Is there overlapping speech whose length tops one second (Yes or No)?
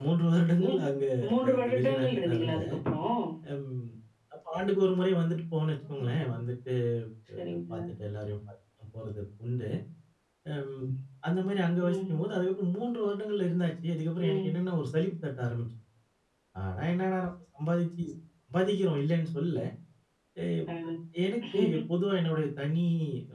Yes